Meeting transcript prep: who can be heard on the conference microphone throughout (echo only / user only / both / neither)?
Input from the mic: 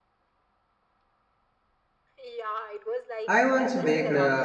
both